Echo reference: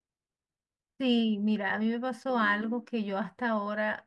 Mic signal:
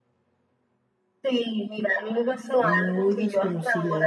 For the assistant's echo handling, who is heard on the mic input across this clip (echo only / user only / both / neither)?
both